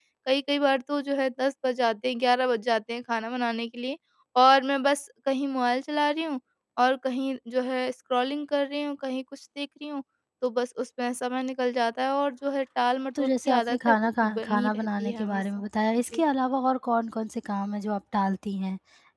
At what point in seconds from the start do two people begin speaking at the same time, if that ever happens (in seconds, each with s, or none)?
13.2 s